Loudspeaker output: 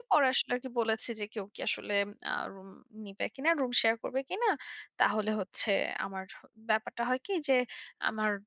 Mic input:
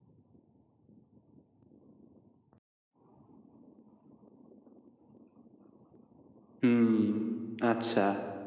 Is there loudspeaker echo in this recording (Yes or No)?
No